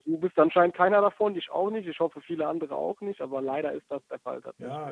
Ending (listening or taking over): taking over